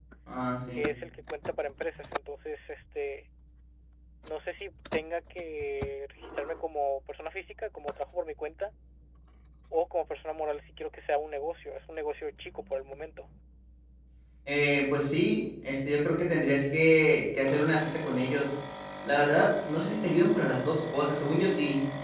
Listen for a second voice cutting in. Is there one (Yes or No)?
No